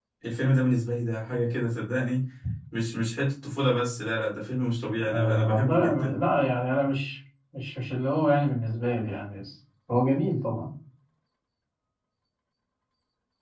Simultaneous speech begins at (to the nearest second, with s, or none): 5 s